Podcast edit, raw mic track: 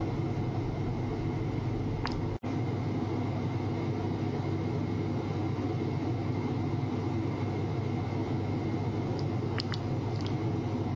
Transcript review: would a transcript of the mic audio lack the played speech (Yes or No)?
Yes